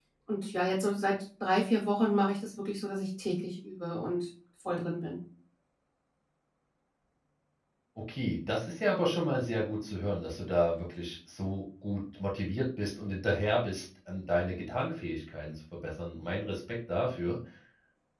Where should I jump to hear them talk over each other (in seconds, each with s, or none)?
none